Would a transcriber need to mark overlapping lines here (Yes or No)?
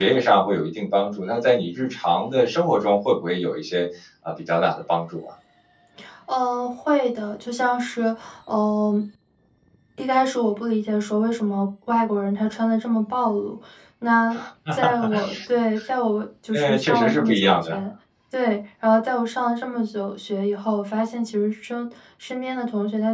Yes